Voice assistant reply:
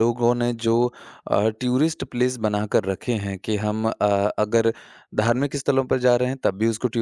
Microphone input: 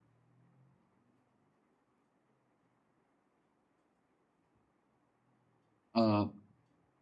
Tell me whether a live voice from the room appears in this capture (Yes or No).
Yes